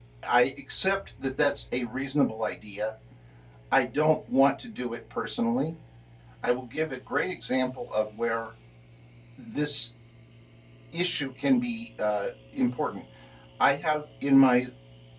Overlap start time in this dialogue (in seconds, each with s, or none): none